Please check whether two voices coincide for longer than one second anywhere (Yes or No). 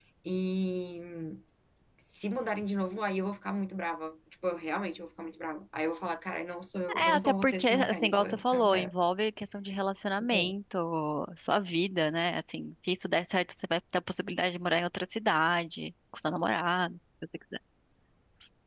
Yes